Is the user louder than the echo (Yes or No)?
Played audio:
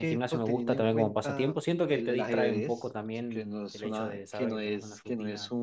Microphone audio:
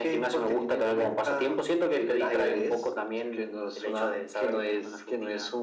No